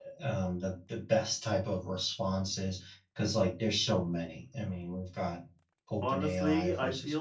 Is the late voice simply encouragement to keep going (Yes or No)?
No